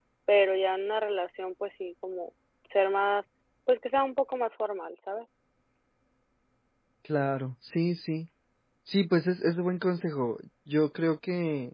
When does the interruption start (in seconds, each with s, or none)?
none